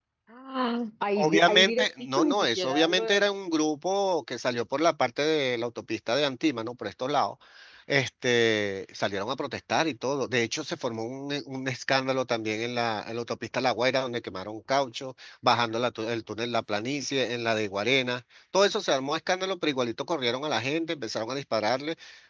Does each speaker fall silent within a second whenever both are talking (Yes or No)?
No